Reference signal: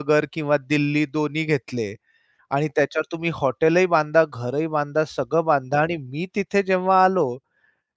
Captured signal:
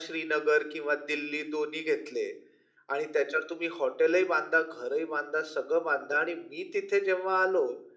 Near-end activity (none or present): none